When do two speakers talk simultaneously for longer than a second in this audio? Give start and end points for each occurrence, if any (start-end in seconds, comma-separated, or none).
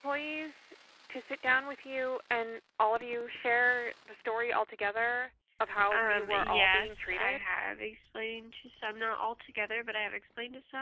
5.9-7.4